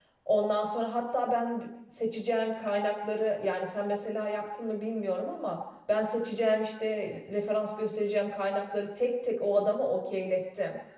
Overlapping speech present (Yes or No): No